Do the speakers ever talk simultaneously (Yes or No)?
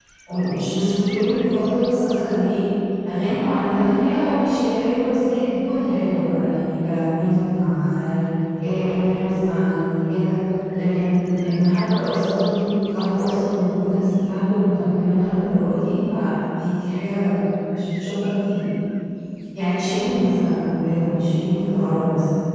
No